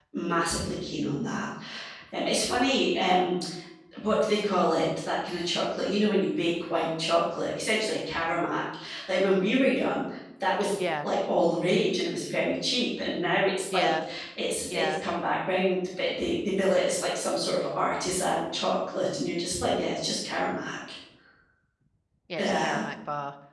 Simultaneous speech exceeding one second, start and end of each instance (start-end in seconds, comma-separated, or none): none